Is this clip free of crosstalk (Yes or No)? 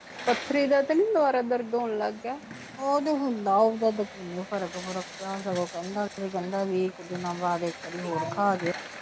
Yes